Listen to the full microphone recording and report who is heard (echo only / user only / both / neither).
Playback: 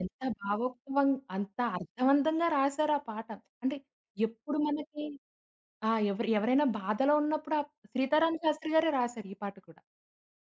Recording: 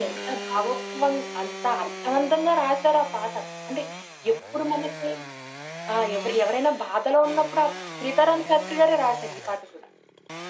echo only